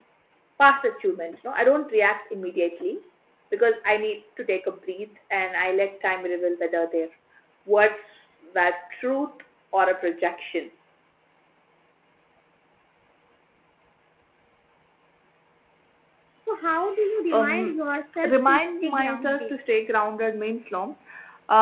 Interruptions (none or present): present